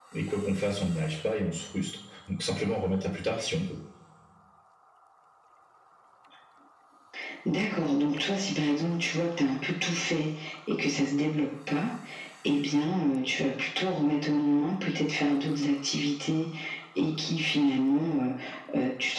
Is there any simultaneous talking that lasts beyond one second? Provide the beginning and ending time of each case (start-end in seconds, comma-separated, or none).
none